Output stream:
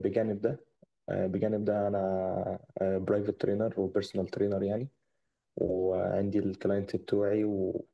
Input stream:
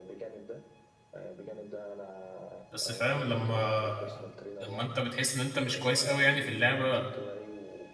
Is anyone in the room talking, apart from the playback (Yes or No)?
Yes